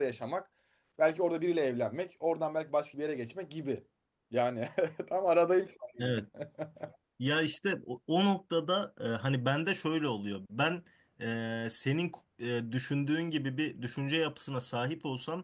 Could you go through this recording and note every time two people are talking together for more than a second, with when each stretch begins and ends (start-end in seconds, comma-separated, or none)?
none